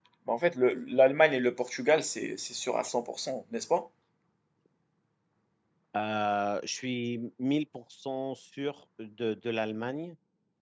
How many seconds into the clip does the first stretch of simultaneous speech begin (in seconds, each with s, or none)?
none